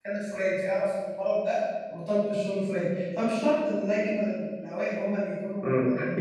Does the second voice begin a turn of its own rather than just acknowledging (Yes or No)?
Yes